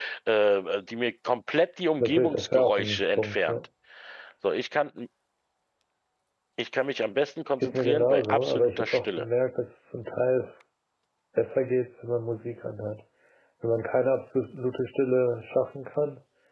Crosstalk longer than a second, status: present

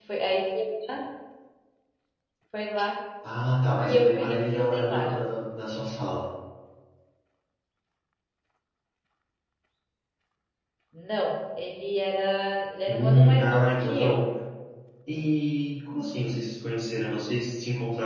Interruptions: present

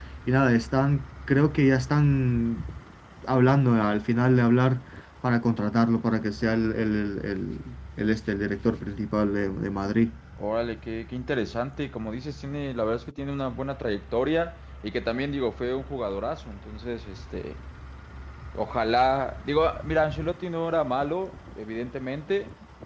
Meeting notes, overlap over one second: none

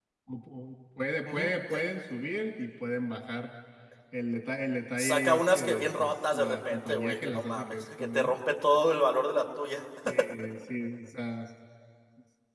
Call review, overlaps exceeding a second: present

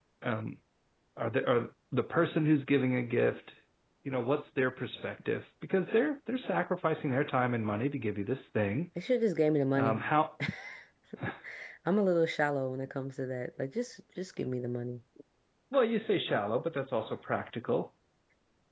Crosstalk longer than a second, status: none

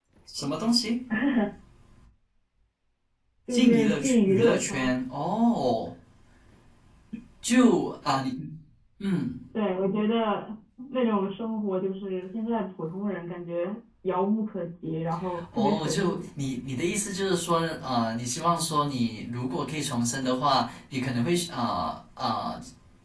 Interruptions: present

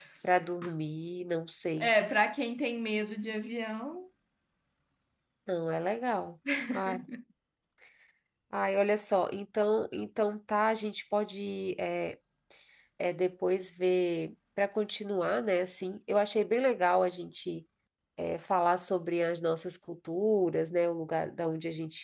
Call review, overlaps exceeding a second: none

